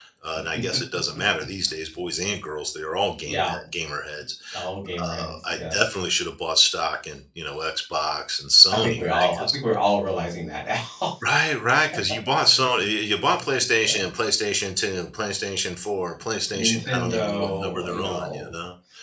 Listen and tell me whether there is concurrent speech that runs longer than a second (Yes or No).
Yes